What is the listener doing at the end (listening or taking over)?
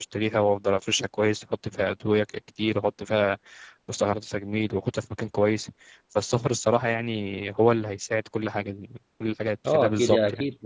taking over